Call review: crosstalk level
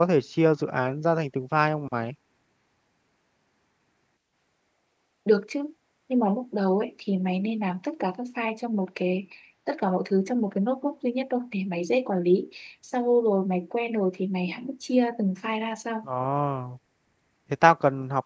none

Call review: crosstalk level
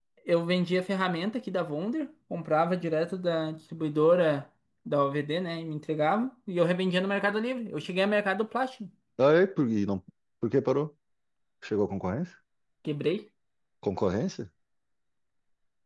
none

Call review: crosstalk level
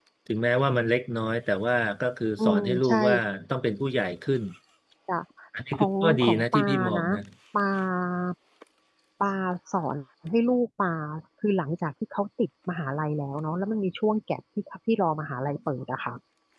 present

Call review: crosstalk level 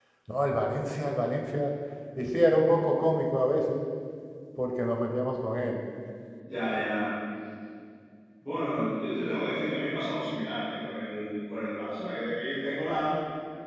none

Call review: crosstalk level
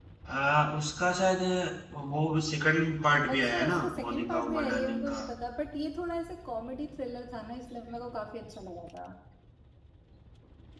present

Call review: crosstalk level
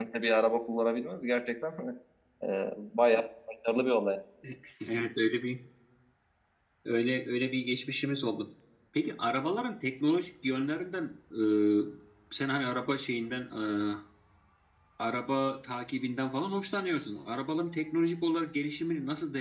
none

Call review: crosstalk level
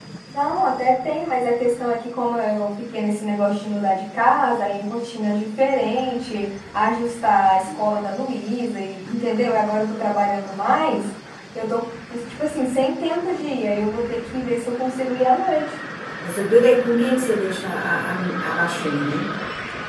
none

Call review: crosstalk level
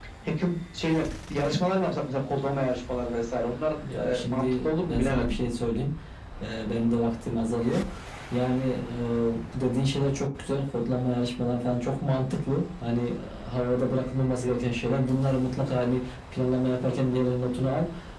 present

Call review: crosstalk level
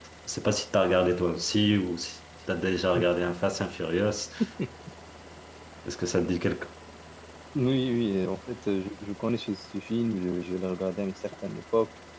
none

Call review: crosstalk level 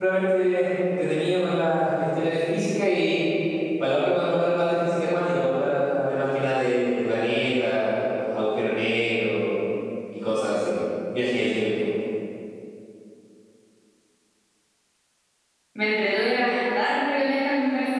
none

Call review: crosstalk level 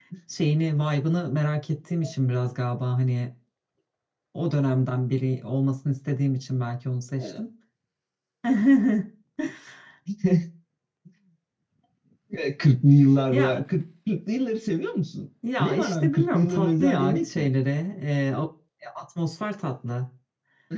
present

